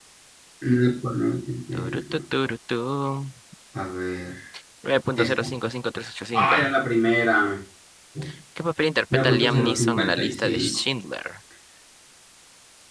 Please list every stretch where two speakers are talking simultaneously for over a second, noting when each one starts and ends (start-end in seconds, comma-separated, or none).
9.1-10.8